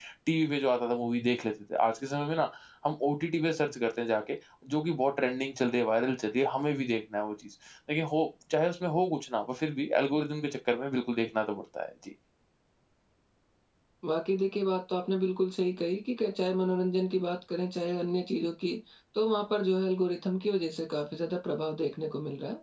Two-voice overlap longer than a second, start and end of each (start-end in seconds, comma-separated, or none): none